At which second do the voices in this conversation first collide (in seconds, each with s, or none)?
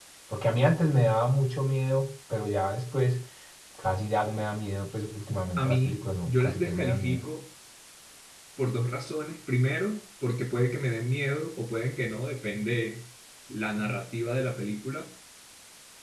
5.6 s